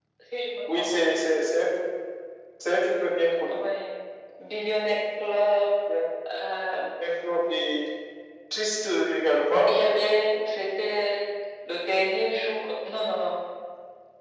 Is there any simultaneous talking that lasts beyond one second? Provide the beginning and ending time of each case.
none

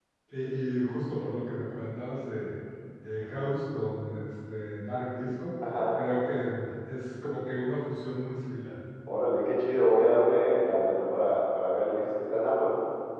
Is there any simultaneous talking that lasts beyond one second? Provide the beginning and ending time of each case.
none

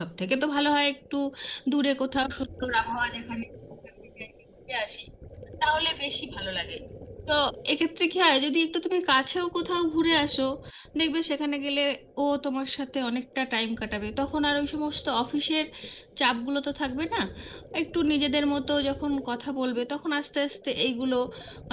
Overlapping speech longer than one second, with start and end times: none

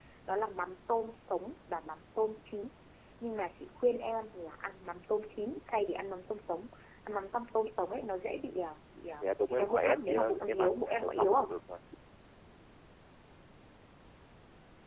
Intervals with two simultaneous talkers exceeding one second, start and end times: 9.2-11.5

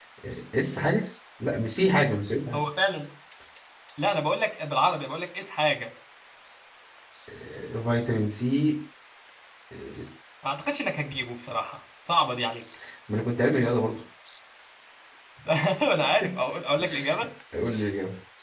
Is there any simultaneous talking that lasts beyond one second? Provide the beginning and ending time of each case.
none

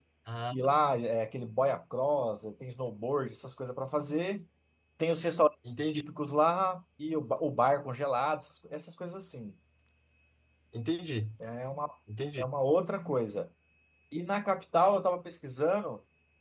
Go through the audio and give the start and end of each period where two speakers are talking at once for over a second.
none

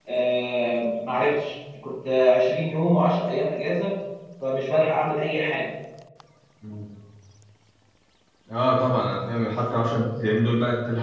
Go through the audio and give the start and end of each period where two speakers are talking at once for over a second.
none

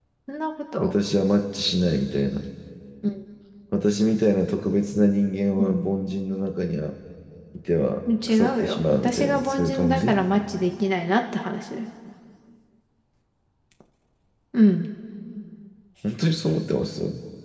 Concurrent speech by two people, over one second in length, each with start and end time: 8.3-10.2

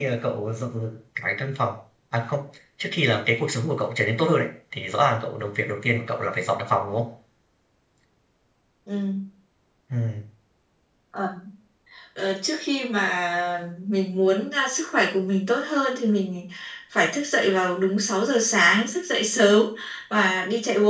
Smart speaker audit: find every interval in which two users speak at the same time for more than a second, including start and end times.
none

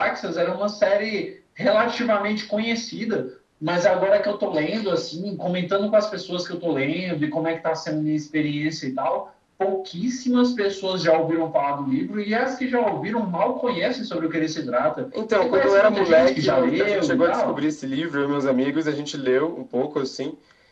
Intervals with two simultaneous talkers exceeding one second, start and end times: 15.4-17.6

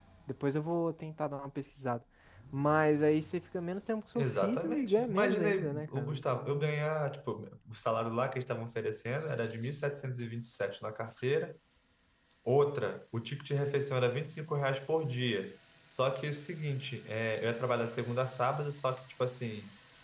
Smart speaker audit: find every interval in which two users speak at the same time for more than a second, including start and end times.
4.2-6.7

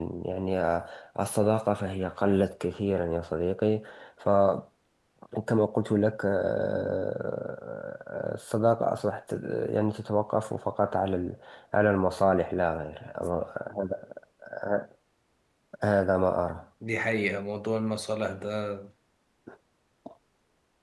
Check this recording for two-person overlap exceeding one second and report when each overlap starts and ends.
none

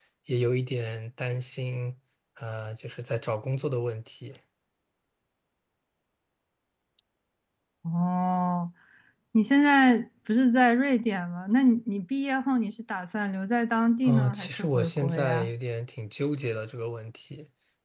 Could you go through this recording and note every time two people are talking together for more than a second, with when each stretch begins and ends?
14.1-15.5

